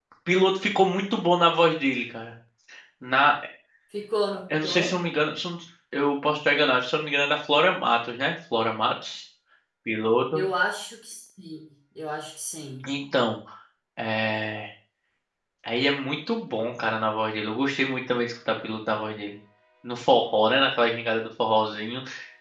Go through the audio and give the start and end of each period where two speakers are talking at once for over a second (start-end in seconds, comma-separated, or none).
none